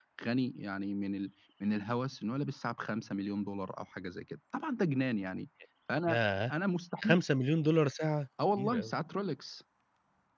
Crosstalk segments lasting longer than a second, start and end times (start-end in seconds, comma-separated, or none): none